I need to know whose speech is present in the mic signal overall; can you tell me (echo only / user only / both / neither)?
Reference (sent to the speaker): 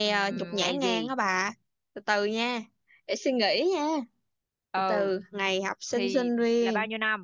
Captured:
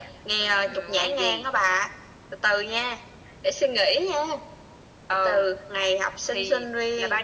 echo only